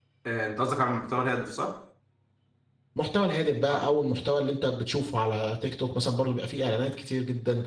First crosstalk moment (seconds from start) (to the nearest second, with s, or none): none